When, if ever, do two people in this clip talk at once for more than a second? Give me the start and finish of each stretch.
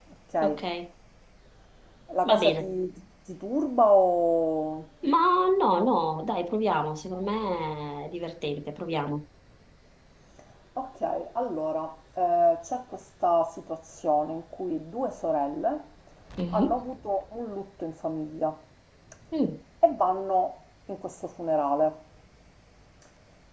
none

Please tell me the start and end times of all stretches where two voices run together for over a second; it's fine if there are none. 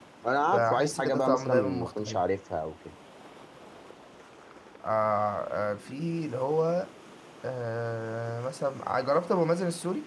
0.5-2.2

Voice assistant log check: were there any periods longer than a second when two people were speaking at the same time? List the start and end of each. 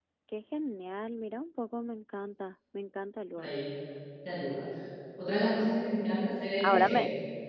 none

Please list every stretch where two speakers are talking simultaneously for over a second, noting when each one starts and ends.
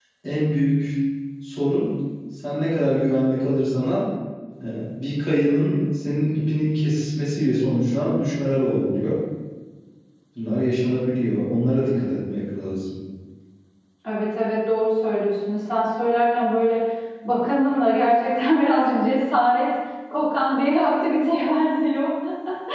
none

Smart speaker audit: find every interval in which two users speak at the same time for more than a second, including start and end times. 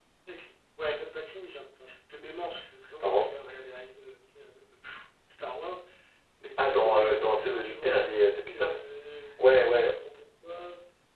6.6-8.8

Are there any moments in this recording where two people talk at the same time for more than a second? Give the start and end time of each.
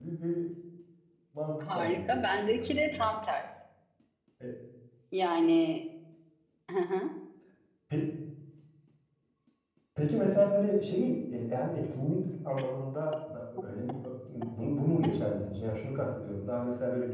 1.6-3.1

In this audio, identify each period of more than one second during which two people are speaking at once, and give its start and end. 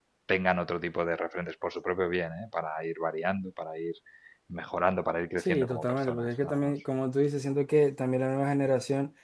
5.4-6.7

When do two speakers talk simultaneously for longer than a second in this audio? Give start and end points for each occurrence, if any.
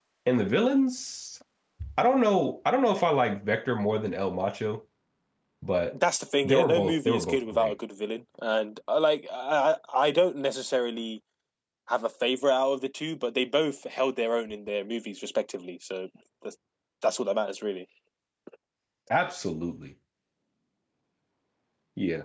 6.4-7.7

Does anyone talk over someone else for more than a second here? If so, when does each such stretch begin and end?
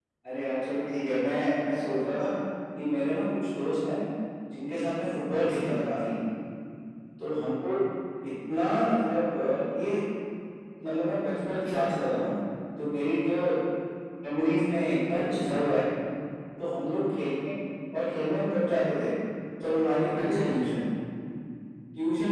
none

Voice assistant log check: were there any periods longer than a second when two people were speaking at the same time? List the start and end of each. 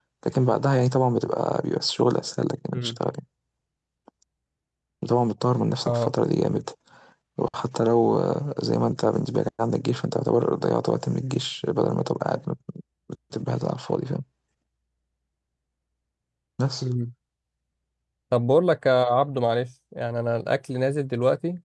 none

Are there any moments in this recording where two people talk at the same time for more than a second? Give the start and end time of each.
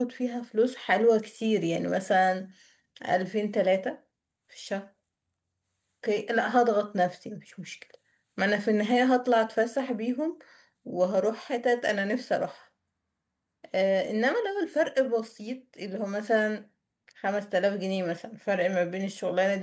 none

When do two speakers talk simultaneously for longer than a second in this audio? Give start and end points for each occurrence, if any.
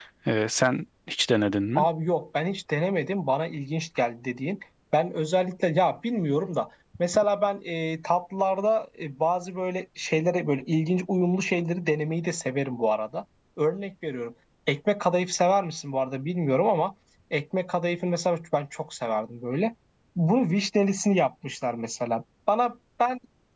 none

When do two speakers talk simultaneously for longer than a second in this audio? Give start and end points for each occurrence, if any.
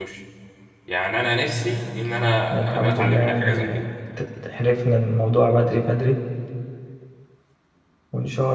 2.5-3.8

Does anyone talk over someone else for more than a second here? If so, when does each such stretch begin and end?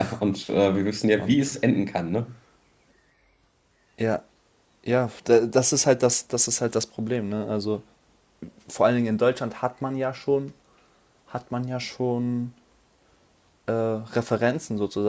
none

